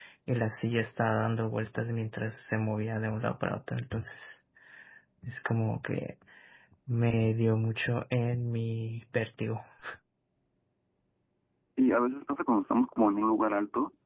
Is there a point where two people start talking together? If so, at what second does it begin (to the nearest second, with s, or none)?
none